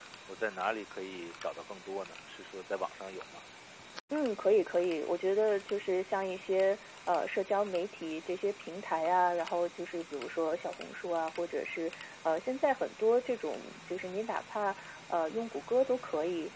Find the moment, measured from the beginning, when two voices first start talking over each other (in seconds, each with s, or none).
none